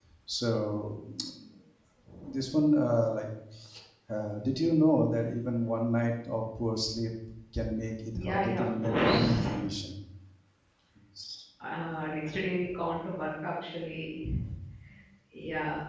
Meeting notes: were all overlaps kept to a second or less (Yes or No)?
No